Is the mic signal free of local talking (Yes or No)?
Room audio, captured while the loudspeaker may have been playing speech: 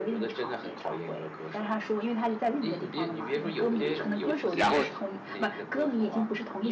No